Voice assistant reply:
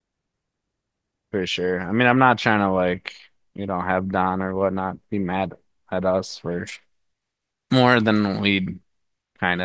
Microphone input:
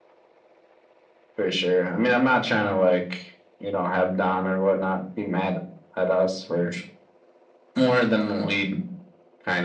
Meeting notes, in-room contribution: none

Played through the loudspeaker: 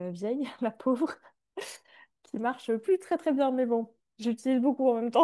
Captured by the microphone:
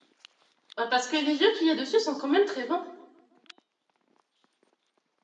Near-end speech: present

